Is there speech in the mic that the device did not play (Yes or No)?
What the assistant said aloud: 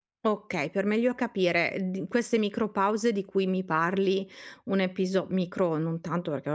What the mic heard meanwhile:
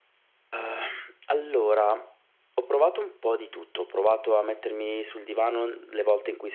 Yes